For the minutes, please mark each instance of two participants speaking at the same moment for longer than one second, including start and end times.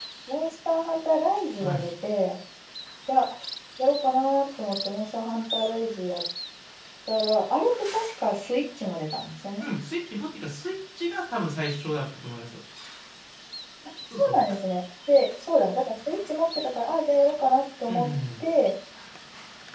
none

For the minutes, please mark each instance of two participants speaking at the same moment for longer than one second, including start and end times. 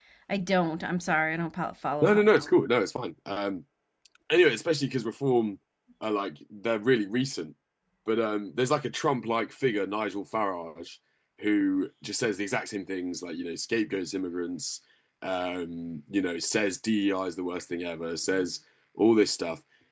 none

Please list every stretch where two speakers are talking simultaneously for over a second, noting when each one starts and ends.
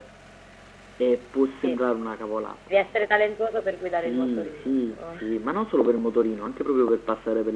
3.9-5.2

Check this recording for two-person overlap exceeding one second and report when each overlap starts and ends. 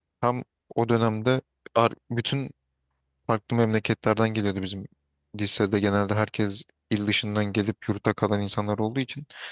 none

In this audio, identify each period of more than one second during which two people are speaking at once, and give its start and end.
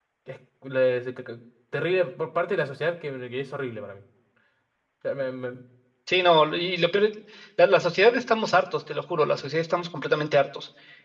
none

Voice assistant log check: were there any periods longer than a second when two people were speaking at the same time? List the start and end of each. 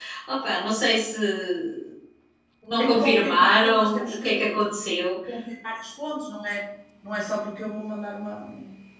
2.8-4.4

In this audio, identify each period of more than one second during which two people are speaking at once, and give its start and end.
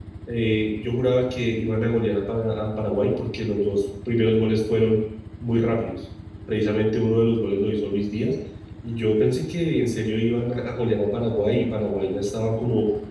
none

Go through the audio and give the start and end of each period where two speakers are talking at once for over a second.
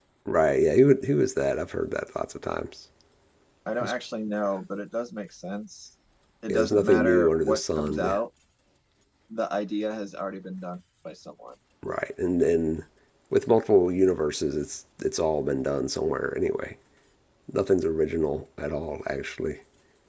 6.5-8.2

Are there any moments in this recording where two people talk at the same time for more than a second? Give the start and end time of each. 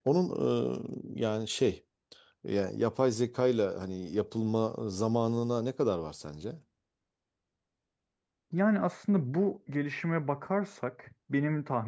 none

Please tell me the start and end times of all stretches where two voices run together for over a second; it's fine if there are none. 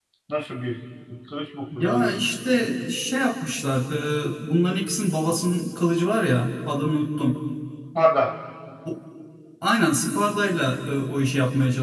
none

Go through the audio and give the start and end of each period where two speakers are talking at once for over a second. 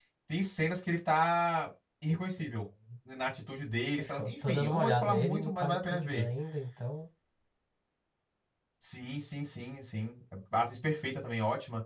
4.0-6.2

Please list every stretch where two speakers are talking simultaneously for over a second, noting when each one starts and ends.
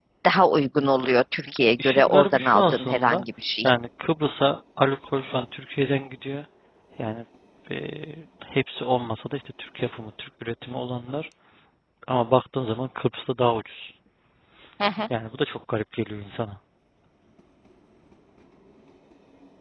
1.8-3.2

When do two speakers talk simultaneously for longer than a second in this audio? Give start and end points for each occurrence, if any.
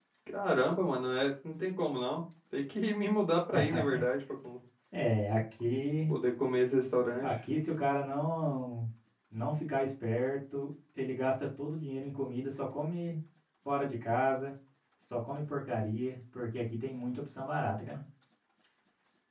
none

